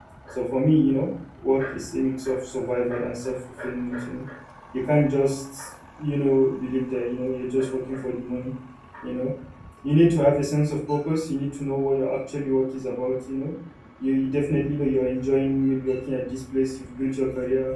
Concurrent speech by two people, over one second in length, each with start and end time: none

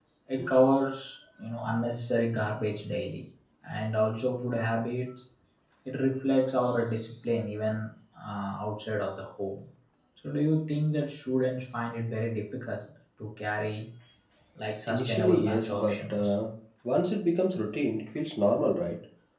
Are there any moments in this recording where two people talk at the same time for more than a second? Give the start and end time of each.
14.9-16.3

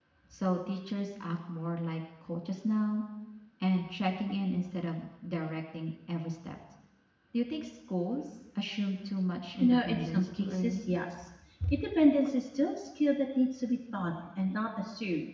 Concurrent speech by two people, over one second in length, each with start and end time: 9.6-10.8

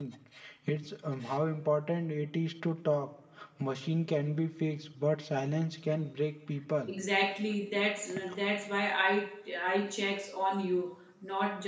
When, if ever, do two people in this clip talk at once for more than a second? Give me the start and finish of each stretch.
none

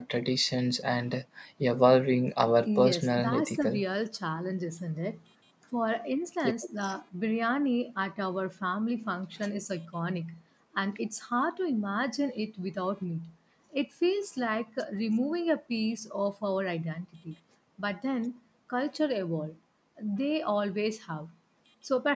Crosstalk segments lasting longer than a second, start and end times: 2.6-3.8

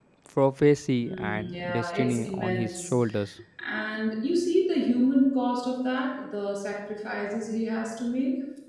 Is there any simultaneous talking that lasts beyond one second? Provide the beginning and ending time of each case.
1.1-2.8

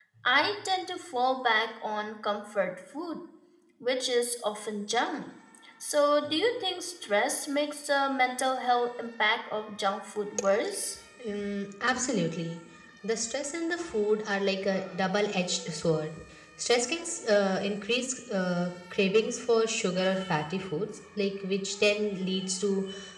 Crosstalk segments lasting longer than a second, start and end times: none

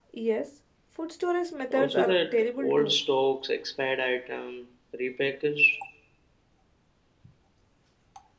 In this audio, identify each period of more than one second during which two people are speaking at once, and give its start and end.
1.7-2.9

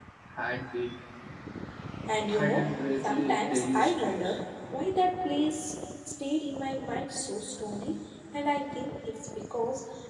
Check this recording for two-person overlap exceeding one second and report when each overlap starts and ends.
2.3-4.4

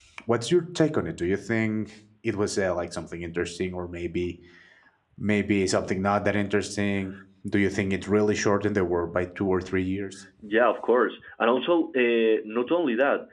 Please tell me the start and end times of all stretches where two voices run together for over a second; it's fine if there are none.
none

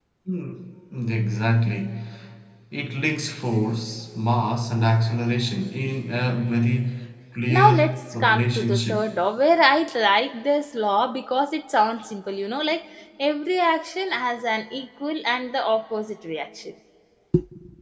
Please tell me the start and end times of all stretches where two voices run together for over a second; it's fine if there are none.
7.5-9.1

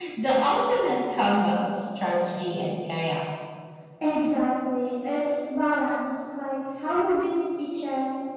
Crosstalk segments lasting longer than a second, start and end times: none

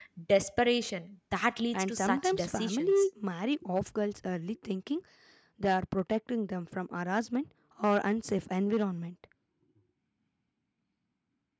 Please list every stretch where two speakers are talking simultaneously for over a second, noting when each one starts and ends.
1.7-3.0

